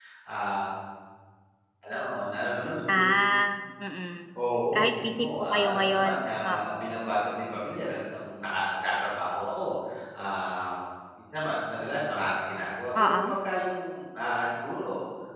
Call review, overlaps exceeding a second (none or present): present